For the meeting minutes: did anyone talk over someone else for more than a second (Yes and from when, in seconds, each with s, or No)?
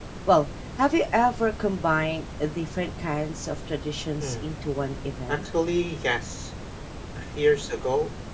No